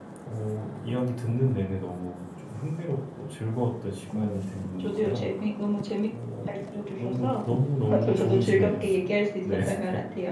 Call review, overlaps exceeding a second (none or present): present